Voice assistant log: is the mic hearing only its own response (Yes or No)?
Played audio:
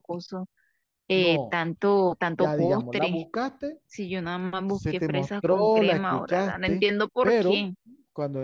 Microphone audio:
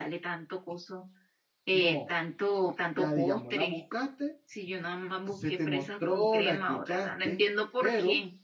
Yes